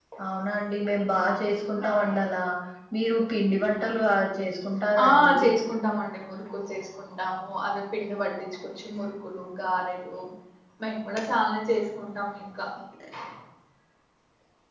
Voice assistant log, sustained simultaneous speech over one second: none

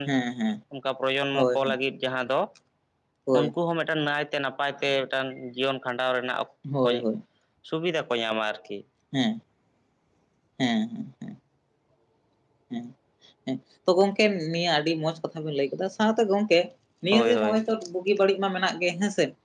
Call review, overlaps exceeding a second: none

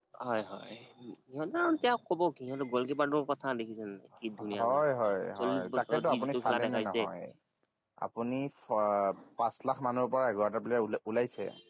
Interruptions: present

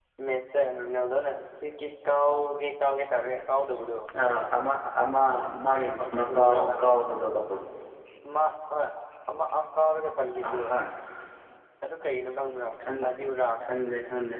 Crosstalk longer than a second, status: none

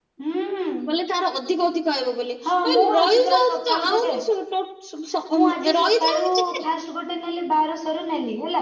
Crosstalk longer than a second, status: present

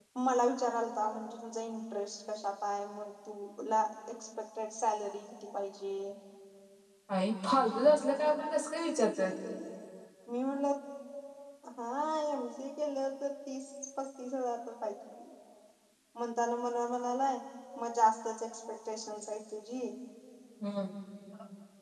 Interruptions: none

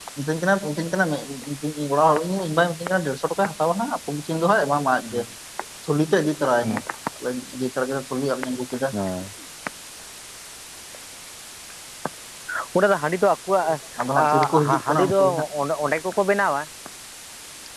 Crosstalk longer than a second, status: present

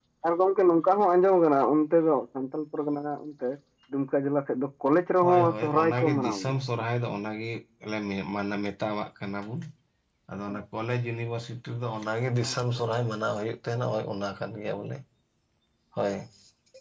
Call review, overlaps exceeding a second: present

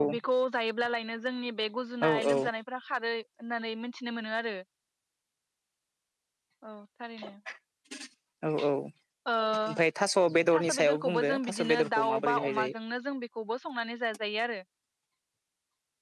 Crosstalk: present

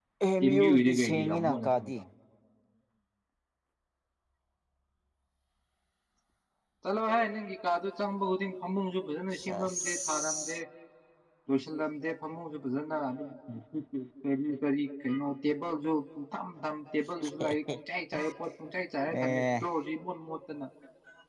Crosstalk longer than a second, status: present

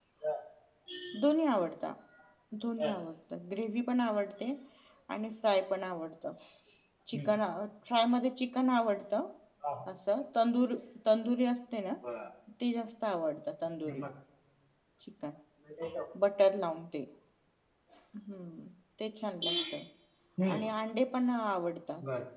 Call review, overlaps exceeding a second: none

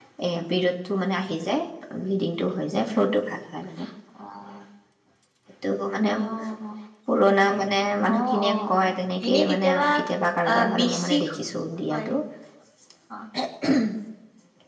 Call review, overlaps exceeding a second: present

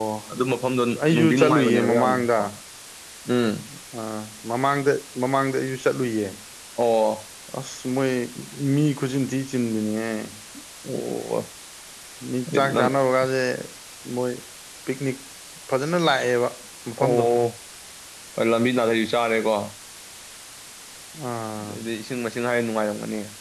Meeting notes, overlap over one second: present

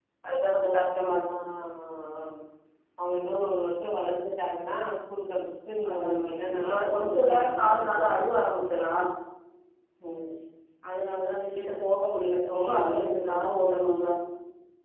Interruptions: present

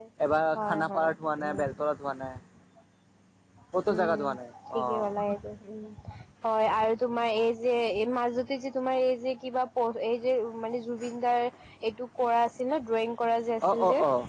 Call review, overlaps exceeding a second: none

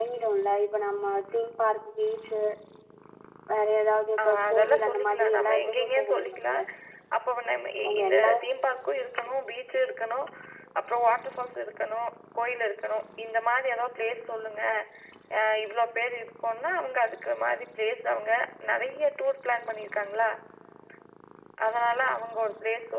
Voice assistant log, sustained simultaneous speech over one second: present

